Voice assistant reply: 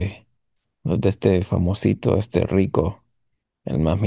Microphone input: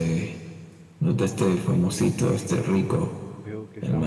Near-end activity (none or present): present